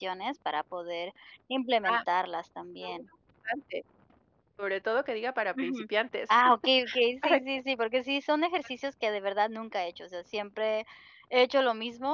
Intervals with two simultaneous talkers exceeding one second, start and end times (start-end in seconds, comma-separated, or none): none